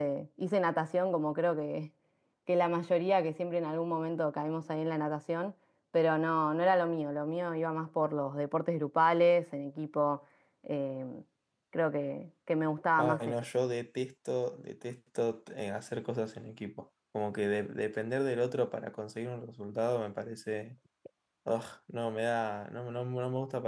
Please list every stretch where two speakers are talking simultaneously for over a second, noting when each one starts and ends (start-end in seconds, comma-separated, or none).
none